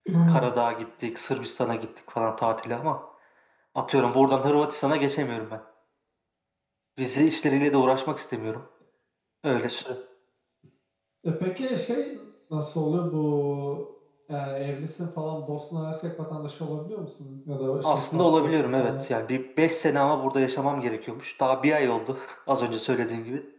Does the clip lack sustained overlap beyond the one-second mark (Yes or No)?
No